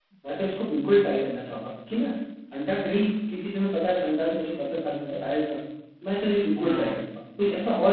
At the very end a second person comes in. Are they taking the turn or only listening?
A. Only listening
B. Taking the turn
A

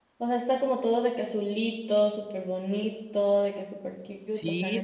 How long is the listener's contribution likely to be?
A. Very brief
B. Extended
B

